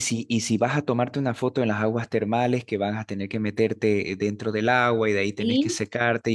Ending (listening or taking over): listening